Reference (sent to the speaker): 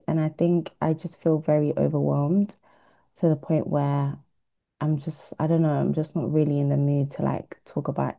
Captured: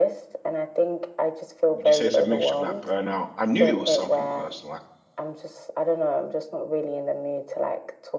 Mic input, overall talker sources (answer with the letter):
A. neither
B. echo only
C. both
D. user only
C